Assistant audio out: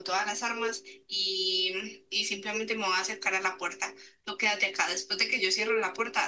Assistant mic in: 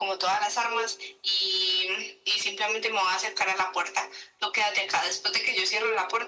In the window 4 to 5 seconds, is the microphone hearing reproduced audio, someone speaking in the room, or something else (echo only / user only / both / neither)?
echo only